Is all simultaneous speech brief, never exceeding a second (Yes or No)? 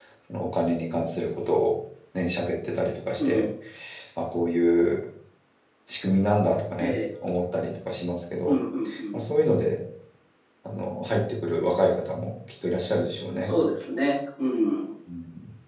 Yes